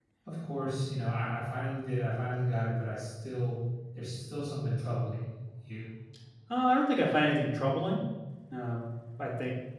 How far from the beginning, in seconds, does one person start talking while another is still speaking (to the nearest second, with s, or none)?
none